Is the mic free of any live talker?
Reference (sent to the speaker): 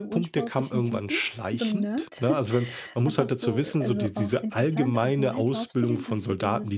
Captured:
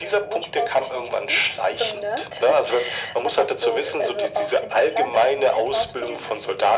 Yes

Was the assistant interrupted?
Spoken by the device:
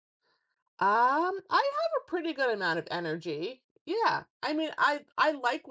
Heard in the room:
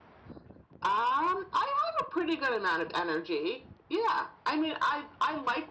No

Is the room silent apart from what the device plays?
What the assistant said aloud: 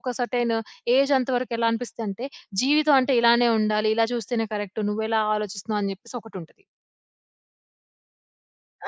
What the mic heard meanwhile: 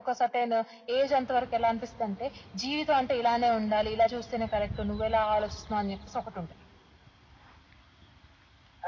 Yes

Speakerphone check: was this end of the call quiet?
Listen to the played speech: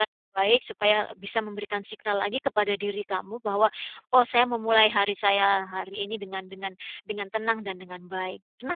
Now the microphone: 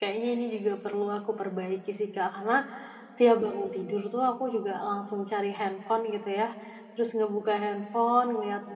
No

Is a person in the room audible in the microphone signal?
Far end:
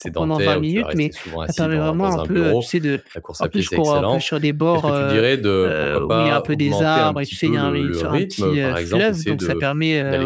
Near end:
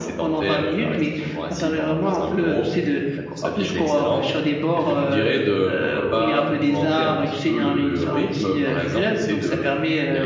No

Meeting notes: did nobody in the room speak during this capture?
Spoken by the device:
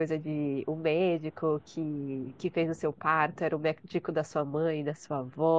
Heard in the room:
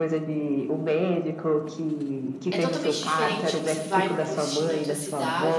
No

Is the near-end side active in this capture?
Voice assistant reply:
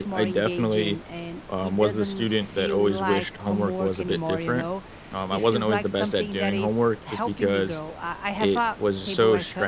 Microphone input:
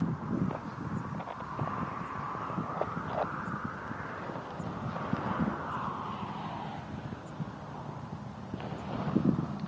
No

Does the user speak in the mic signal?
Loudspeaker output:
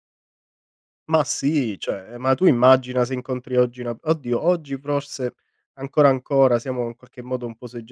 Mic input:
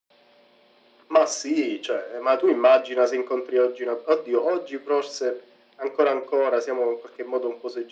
No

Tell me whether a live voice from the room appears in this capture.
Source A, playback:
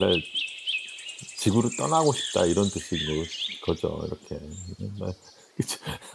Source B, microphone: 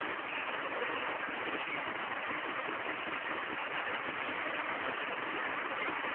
No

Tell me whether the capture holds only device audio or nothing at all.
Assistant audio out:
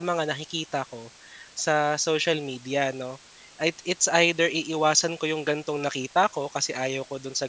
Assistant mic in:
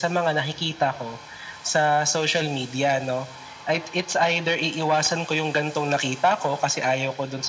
Yes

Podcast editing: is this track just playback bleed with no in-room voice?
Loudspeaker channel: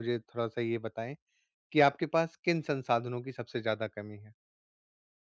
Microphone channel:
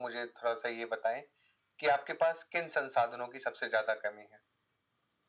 Yes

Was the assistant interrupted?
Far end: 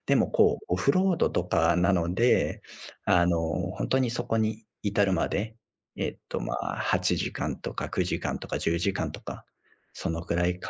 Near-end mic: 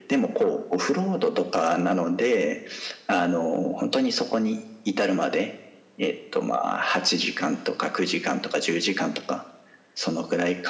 No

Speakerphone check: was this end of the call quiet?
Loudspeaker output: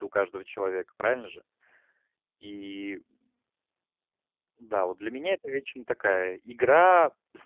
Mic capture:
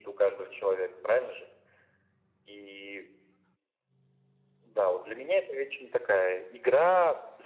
Yes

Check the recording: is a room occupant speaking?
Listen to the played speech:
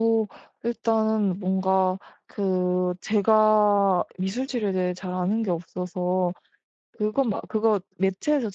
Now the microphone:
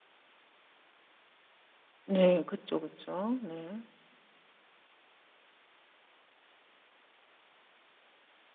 Yes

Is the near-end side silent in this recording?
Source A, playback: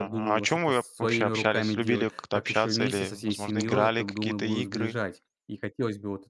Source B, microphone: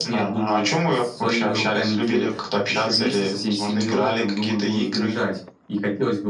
Yes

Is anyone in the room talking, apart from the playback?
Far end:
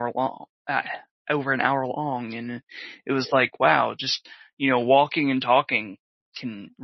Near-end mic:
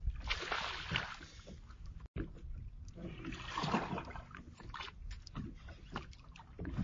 No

